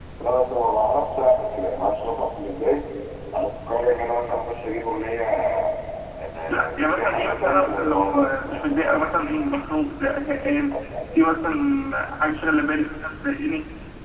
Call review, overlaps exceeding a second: present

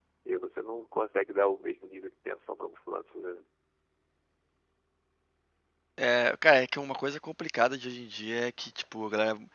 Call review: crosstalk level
none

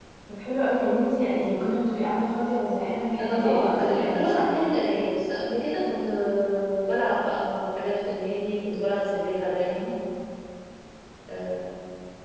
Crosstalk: present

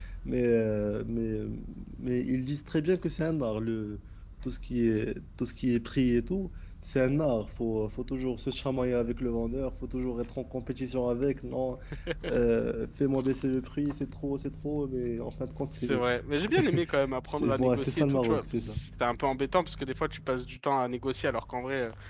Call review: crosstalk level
present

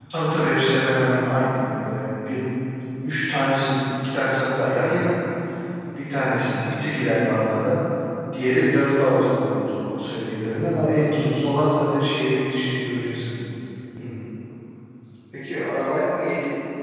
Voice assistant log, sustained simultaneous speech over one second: none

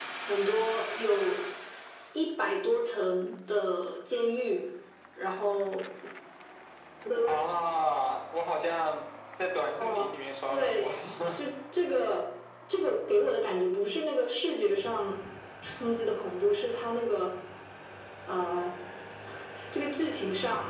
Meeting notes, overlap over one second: none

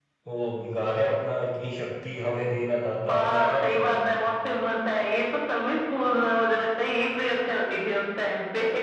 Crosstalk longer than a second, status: present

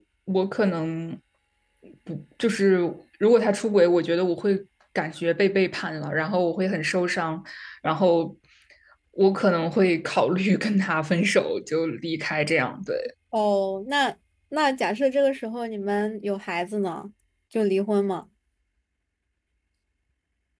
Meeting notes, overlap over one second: none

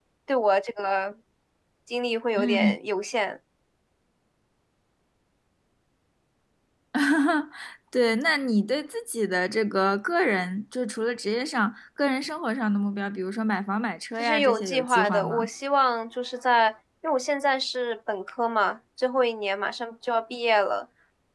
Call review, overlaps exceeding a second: present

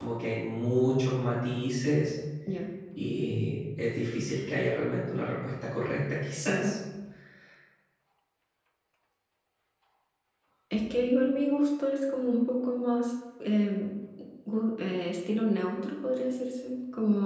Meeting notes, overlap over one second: none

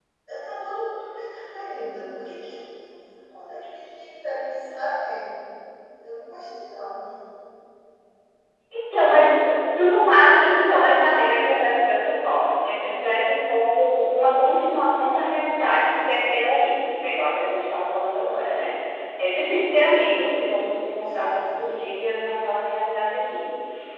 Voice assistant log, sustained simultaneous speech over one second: none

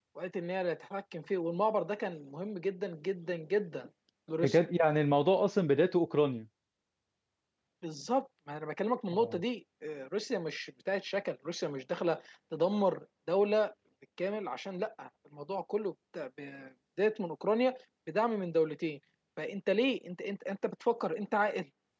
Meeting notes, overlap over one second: none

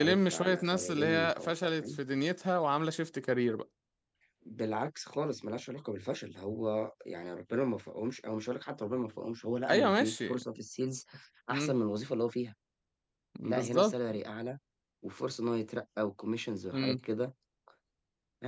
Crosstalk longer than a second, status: present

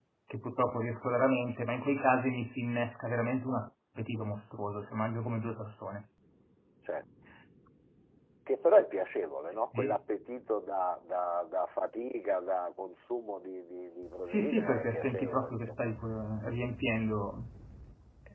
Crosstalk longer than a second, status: present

